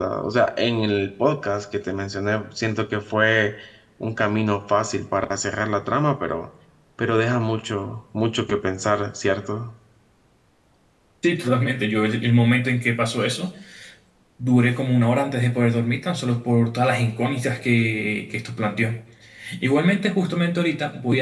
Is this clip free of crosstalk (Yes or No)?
Yes